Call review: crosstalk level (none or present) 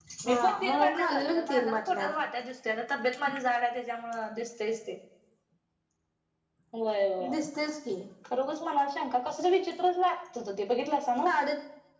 present